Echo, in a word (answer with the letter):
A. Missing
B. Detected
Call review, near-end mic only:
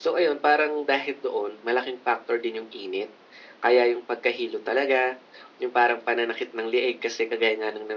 B